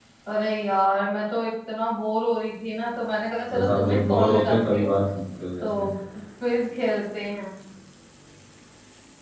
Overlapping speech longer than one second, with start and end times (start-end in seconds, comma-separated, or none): 3.5-4.9